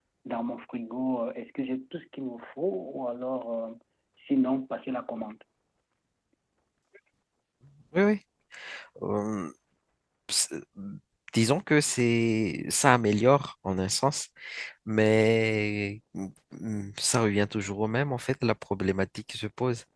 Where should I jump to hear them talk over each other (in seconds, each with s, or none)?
none